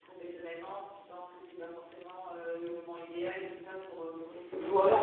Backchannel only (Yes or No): No